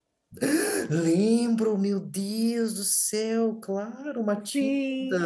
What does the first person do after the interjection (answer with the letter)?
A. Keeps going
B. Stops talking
B